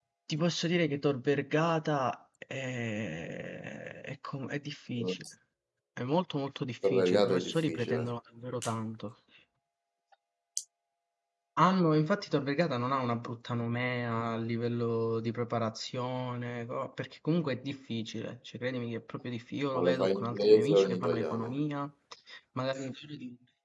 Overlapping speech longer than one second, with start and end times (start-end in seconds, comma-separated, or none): 6.8-8.1, 19.7-21.6